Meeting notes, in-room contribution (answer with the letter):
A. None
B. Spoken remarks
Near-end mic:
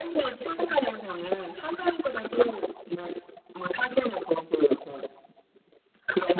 B